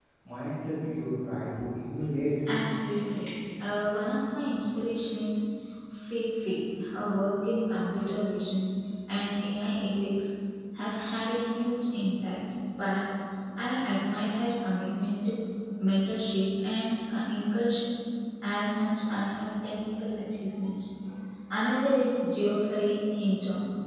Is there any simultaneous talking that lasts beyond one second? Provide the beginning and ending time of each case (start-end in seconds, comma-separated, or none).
none